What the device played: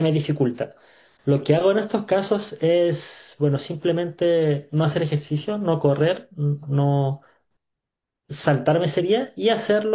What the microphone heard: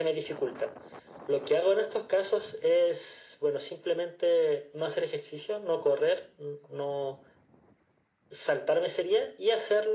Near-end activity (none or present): none